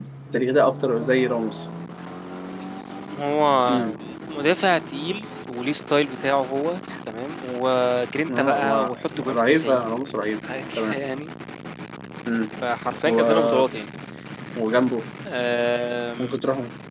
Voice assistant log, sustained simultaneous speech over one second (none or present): present